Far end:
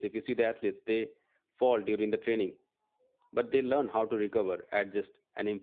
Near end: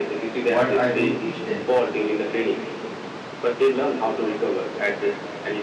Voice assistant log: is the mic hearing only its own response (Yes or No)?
No